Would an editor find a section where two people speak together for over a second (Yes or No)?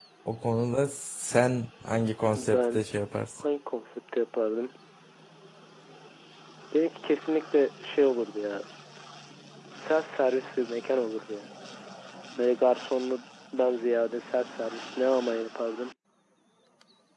No